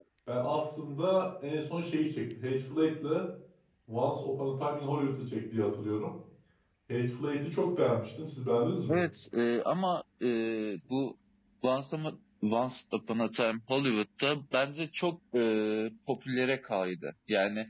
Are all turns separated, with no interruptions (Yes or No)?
Yes